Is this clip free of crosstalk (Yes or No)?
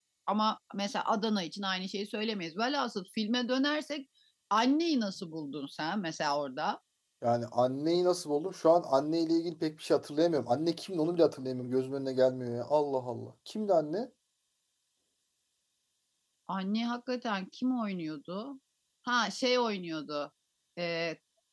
Yes